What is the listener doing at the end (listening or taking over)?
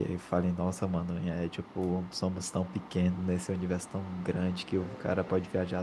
listening